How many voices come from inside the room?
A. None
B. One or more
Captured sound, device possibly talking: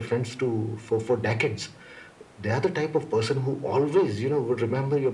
A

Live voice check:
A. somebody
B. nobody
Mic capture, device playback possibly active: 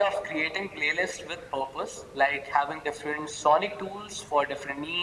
B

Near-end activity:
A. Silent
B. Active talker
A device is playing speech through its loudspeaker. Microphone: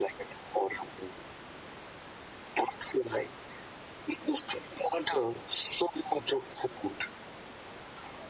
A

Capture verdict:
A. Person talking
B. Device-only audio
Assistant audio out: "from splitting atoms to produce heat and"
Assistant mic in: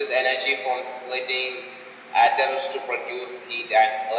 B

